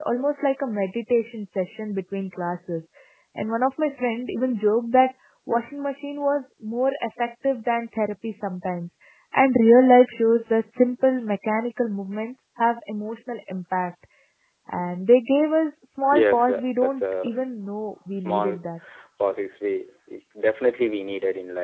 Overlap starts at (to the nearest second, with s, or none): 16 s